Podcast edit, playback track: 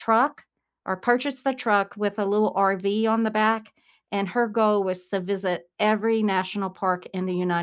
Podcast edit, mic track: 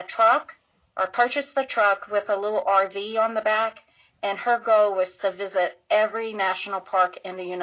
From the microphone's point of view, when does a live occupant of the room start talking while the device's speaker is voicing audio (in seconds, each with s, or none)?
none